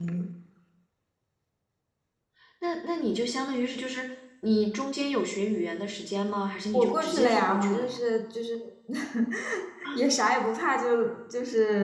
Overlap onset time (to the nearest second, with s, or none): 7 s